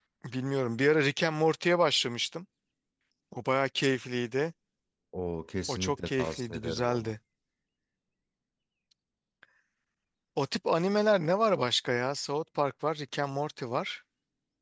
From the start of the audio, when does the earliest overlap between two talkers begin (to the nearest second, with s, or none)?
6 s